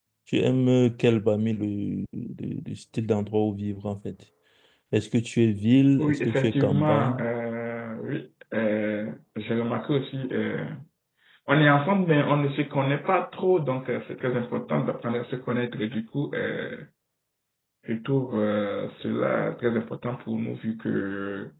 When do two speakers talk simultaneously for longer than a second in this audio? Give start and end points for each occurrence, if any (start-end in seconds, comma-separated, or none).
6.0-7.2